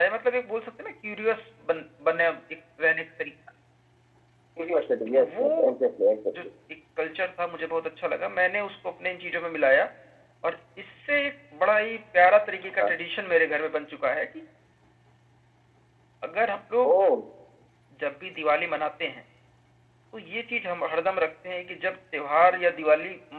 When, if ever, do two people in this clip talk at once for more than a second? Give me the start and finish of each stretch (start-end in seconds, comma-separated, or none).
none